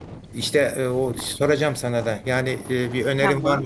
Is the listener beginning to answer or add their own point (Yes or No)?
No